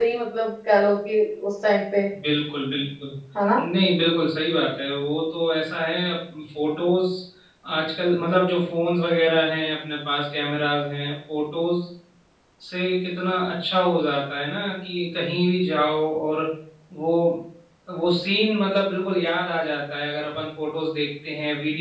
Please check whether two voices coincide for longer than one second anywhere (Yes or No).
No